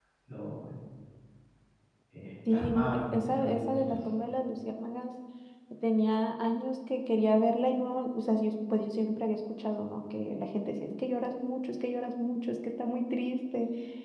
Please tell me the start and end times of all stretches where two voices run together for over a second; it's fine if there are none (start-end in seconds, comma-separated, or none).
2.5-4.0